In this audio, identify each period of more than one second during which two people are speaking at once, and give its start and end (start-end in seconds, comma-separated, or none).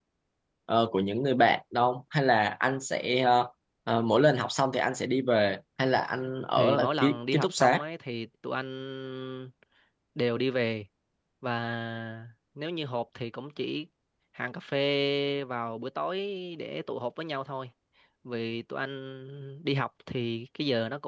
6.6-7.8